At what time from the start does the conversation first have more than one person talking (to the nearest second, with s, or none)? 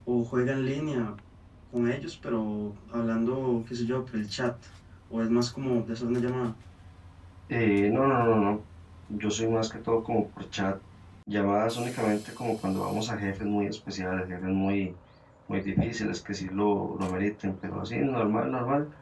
none